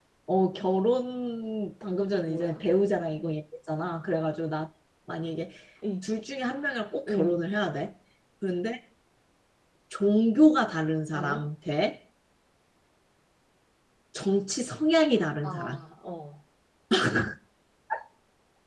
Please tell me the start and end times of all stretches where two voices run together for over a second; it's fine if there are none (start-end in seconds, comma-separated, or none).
none